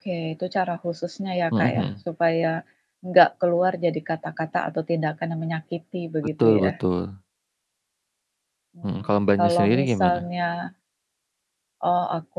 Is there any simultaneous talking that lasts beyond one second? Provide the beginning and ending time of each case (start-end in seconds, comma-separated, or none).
8.8-10.2